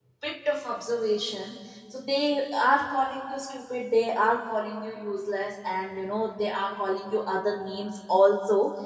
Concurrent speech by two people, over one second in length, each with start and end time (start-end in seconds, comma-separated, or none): none